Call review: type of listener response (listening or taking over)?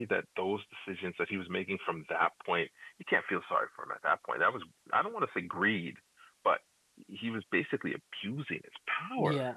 taking over